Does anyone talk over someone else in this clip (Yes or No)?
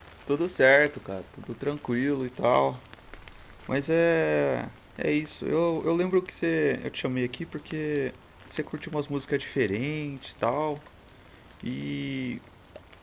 No